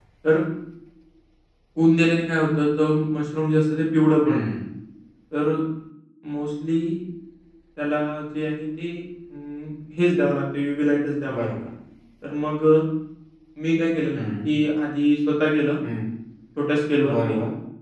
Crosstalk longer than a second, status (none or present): none